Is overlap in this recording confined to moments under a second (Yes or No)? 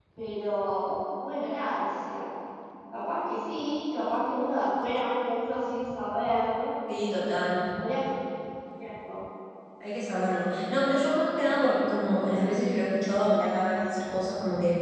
Yes